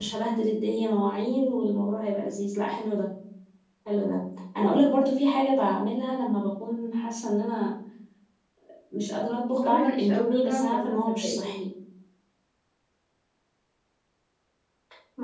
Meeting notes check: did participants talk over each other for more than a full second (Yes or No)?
Yes